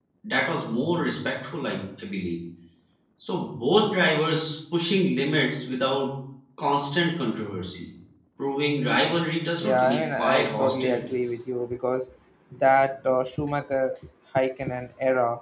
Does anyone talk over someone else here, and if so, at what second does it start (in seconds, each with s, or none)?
9.6 s